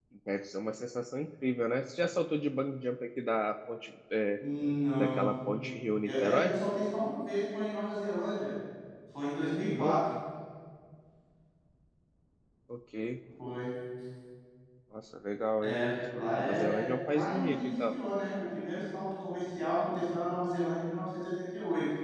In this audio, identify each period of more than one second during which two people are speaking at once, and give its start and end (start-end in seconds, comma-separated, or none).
16.4-17.9